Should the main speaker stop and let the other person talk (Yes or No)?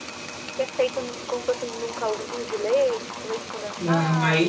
Yes